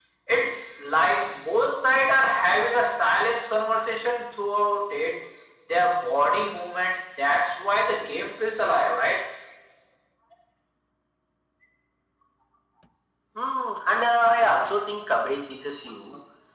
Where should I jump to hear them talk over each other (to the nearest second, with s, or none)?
none